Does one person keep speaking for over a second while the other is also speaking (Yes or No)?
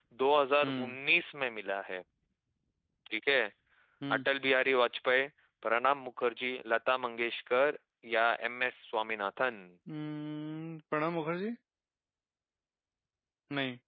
No